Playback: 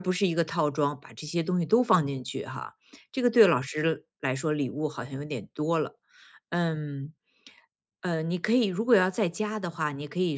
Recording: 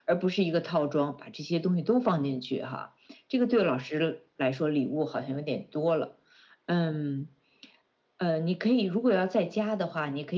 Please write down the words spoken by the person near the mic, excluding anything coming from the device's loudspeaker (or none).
none